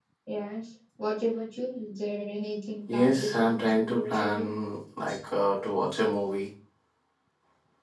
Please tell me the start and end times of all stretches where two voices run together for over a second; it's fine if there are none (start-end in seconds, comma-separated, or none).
2.9-4.5